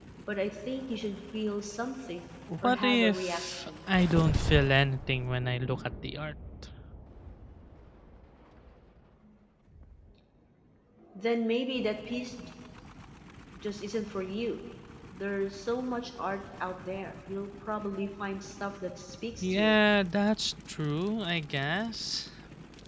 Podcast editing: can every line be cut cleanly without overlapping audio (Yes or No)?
No